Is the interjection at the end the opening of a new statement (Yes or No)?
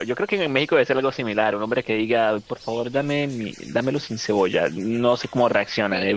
Yes